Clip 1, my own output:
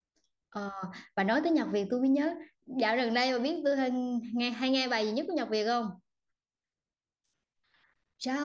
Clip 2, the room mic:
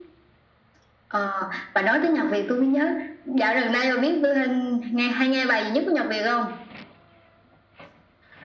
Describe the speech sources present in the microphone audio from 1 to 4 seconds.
echo only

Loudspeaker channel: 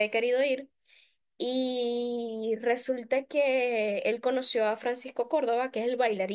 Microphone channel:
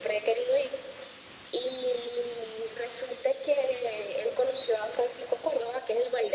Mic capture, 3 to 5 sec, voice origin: echo only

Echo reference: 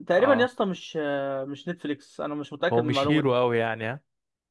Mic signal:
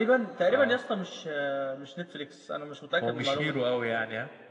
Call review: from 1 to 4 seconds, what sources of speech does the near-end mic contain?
echo only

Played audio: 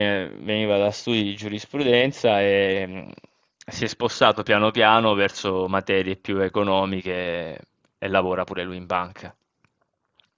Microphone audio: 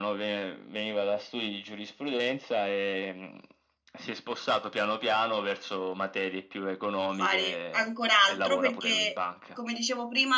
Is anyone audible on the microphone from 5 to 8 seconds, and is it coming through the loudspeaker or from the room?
both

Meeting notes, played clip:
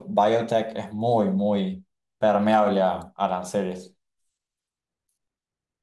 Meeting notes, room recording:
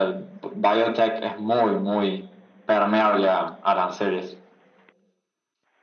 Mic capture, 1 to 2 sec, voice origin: echo only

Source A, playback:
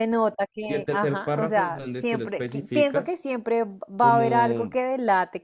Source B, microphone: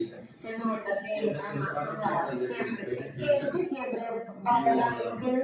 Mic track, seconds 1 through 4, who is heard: echo only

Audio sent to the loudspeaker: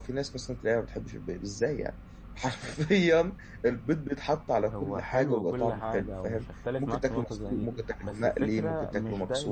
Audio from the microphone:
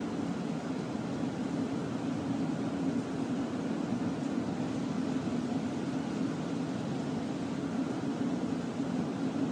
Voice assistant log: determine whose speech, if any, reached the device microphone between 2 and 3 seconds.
neither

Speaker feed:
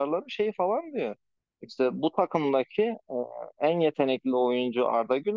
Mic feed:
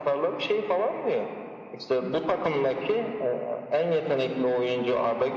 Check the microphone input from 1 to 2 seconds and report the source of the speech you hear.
echo only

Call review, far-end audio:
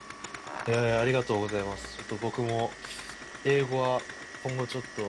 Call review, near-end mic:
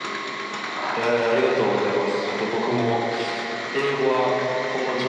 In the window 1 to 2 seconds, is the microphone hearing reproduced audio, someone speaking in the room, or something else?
echo only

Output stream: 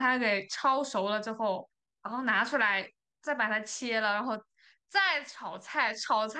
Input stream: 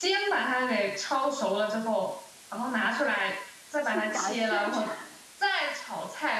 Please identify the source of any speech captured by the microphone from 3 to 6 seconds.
both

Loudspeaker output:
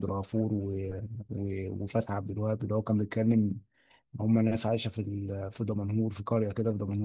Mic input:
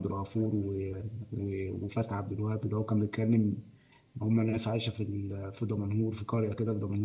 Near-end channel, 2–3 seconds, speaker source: echo only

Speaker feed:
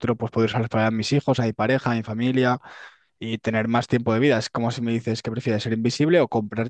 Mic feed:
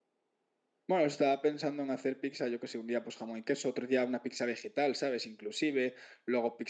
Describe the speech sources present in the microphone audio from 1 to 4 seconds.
user only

